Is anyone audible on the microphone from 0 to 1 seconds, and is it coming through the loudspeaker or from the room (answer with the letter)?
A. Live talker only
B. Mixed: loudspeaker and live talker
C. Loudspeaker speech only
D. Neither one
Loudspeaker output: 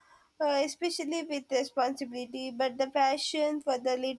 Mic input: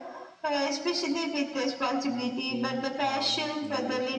C